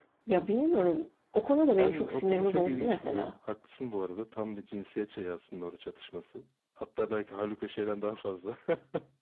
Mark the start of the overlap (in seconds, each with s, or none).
1.8 s